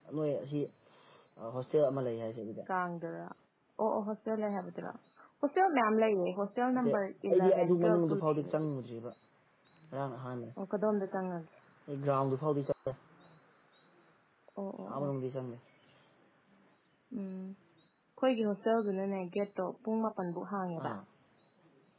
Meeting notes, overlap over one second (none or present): present